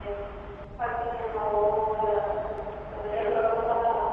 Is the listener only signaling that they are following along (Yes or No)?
Yes